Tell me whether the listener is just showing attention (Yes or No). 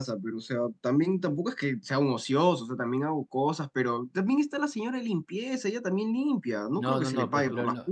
No